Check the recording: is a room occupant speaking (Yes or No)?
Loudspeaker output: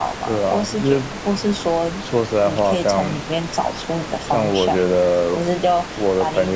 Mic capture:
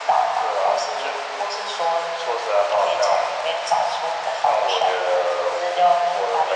No